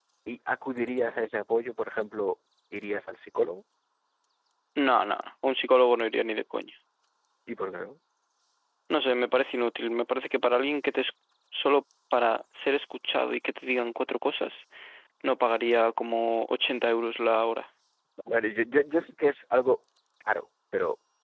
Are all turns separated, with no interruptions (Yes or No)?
Yes